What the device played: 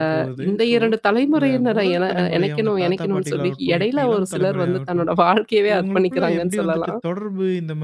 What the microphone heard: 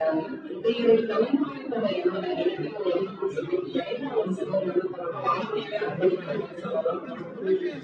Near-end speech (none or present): present